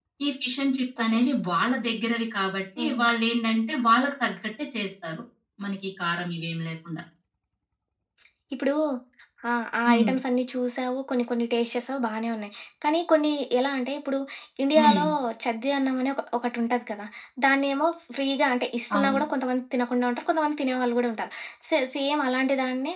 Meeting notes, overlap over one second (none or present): none